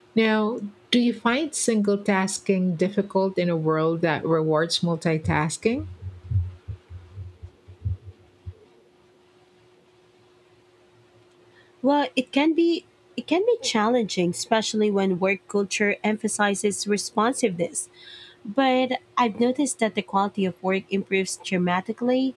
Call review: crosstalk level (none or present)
none